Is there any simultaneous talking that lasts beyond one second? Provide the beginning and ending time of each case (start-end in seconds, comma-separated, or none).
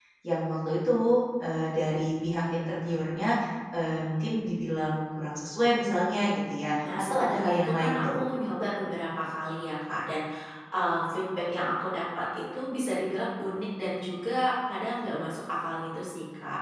6.8-8.2